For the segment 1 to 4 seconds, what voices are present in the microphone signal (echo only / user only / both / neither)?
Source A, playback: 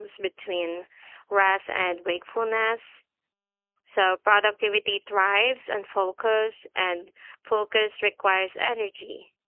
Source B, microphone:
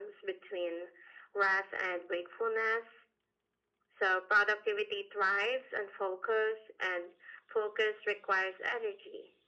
echo only